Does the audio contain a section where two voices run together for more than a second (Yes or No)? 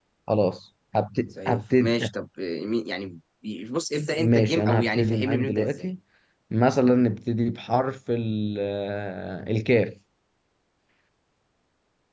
Yes